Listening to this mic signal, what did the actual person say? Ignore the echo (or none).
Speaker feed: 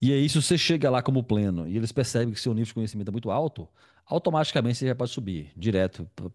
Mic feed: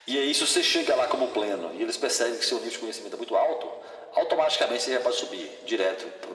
none